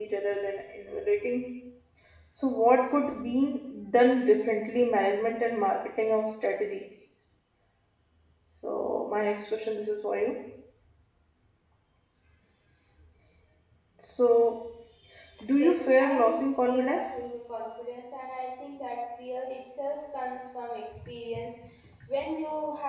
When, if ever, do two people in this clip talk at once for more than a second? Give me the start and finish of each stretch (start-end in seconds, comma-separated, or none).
15.6-17.0